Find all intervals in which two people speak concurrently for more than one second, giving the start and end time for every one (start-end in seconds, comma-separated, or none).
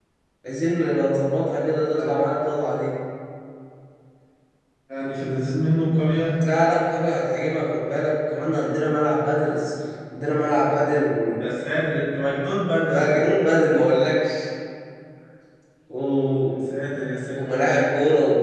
none